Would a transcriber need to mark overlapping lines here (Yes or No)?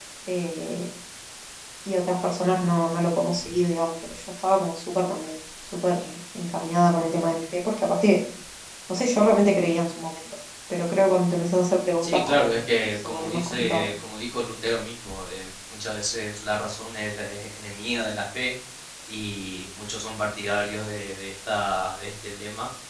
Yes